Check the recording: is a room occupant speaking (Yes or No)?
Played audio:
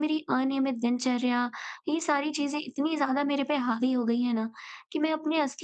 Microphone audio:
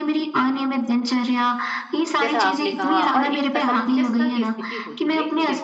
Yes